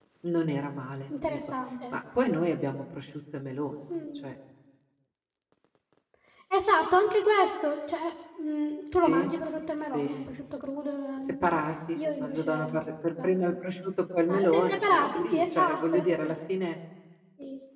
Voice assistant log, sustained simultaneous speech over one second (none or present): present